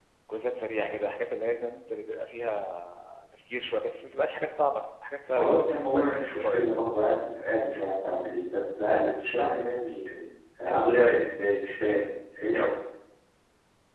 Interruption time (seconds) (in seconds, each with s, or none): 5.4 s